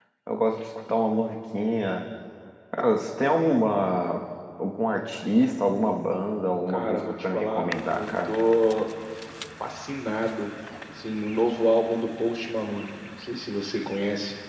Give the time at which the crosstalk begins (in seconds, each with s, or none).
6.7 s